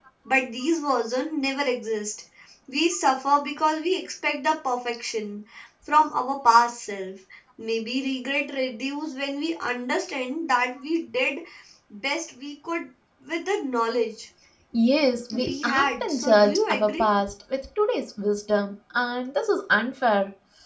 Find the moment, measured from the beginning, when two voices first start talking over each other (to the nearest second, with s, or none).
15 s